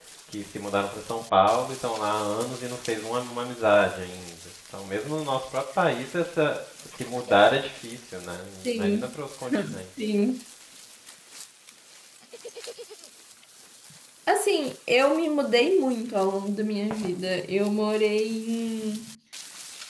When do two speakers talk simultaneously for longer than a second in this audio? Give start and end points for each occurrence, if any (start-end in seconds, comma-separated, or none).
none